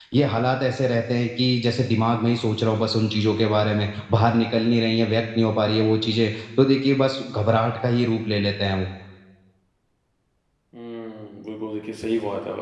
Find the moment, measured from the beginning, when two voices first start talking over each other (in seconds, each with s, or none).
none